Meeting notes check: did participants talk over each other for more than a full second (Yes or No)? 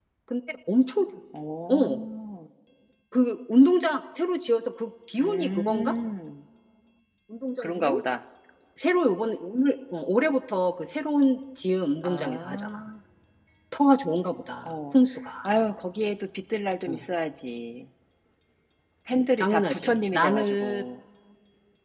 Yes